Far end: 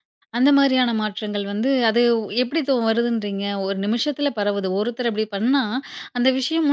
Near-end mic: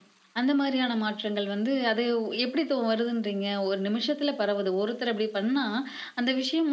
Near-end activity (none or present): none